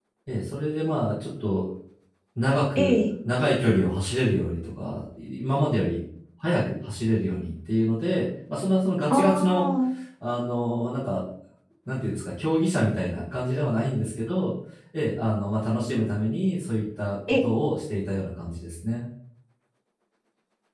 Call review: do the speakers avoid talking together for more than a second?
Yes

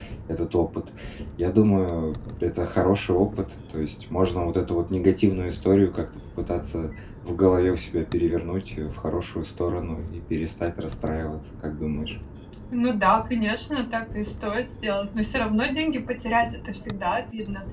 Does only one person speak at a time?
Yes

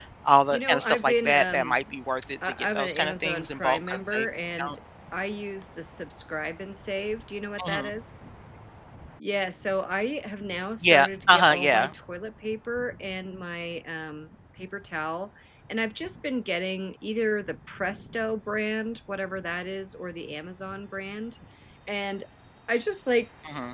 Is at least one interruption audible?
Yes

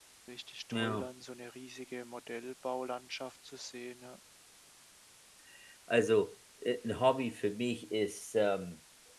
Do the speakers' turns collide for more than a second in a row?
No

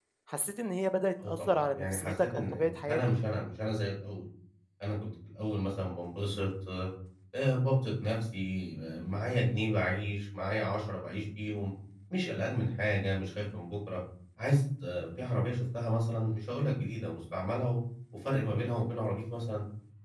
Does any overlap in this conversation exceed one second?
Yes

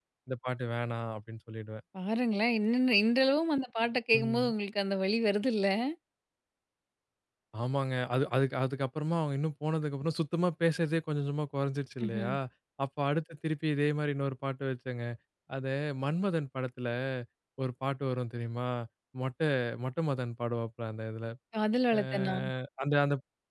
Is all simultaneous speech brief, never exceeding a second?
Yes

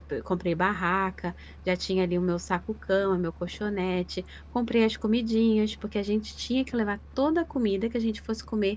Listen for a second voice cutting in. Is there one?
No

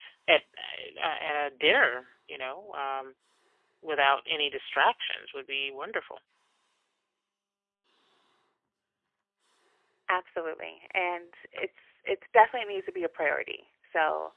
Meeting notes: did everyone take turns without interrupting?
Yes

